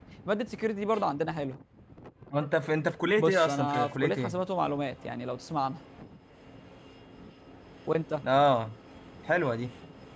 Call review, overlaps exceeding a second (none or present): present